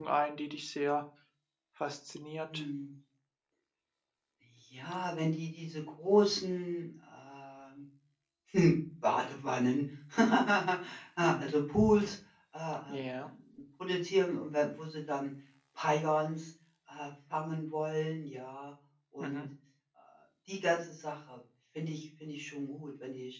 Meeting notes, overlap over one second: none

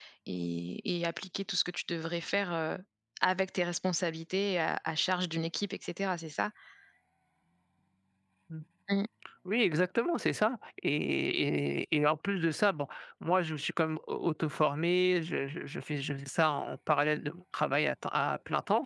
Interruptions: none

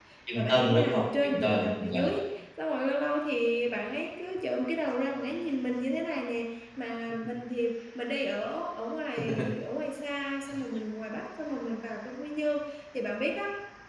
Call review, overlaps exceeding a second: present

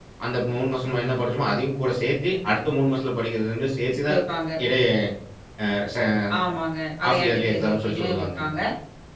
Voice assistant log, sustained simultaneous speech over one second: present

